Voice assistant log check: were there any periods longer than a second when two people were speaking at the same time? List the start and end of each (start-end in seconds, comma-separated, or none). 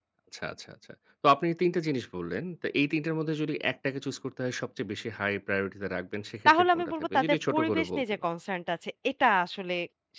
6.5-8.2